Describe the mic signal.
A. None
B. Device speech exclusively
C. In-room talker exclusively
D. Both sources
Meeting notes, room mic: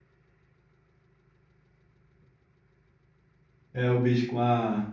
C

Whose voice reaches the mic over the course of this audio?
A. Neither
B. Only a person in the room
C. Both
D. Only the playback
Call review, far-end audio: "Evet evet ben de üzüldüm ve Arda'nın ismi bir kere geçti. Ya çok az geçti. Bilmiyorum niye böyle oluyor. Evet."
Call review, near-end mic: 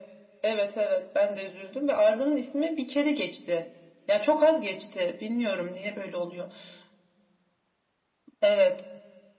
D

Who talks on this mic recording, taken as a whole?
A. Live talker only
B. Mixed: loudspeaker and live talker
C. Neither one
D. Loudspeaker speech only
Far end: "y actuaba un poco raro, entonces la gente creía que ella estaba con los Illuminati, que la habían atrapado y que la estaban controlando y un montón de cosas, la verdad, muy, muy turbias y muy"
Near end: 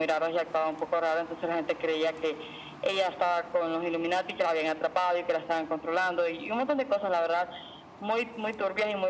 D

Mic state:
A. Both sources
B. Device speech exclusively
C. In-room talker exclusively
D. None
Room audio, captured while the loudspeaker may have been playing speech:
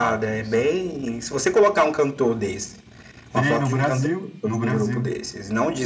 B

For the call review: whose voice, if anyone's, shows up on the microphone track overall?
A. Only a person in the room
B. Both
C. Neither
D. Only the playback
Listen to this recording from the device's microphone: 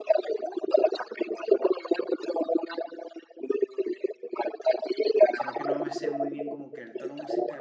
B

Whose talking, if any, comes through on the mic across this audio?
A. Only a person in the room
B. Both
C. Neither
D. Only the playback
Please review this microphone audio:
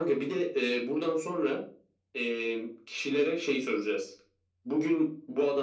D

